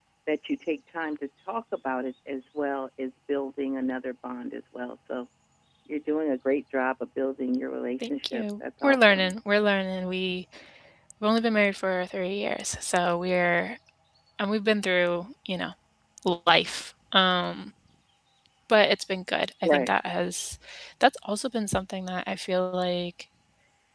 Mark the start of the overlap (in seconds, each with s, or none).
8.0 s